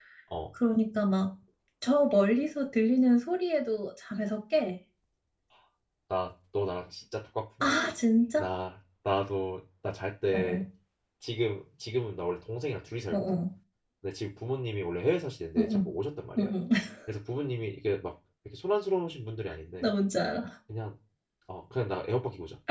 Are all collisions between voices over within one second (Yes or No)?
Yes